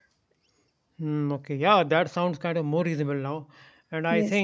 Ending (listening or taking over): listening